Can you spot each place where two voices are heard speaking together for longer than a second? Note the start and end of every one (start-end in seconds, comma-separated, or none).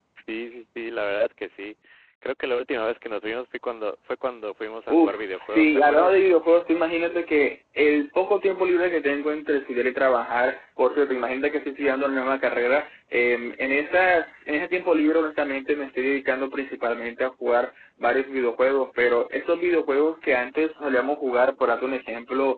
4.9-6.1